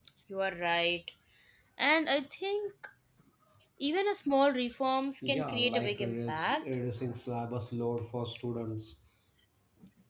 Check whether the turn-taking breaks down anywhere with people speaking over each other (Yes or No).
Yes